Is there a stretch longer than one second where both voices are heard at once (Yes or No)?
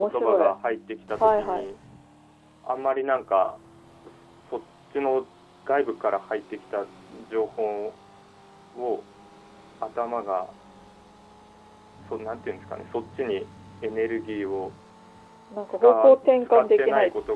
Yes